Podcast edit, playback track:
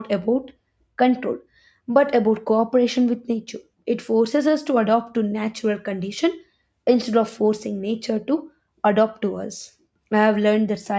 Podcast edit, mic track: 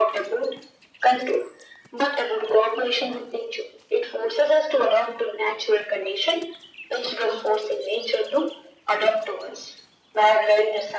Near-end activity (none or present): none